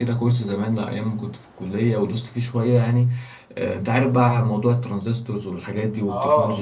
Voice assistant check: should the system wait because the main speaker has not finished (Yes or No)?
No